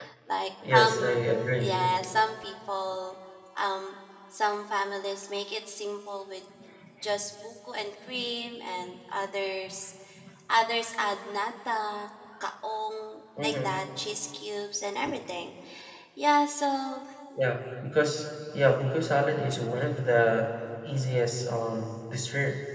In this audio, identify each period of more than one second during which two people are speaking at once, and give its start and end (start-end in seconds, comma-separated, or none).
none